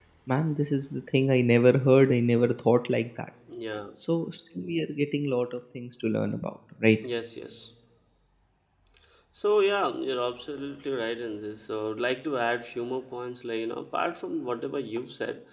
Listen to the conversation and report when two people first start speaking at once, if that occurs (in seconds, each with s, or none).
none